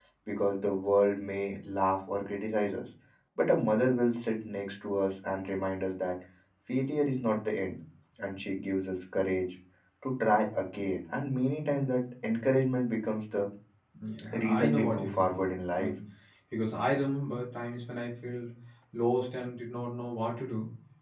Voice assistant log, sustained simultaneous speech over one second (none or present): present